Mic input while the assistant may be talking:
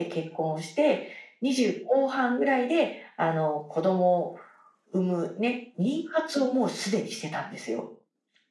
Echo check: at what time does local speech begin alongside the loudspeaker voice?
none

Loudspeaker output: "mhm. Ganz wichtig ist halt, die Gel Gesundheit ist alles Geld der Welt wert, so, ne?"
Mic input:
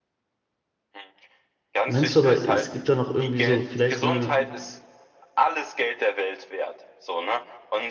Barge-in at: 2 s

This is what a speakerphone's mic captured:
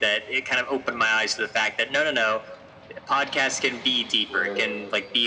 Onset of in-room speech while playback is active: 4 s

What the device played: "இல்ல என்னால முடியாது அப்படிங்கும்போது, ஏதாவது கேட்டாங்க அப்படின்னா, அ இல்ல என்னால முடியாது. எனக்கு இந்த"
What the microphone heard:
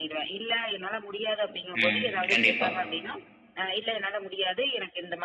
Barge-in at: 2 s

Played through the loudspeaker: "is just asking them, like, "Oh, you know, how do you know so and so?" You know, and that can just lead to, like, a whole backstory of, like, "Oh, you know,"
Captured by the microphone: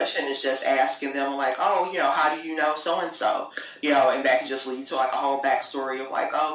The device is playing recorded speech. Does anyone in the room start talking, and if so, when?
none

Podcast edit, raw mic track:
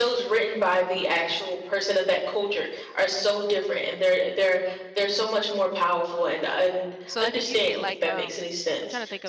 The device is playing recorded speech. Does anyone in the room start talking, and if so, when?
7 s

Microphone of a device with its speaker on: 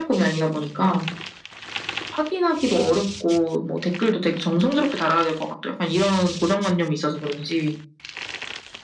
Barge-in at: none

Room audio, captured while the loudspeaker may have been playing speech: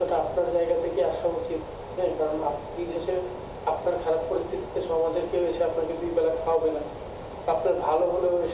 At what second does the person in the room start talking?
none

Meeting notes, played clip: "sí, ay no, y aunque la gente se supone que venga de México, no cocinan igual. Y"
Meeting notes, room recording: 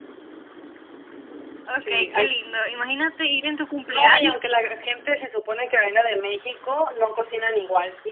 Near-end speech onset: 2 s

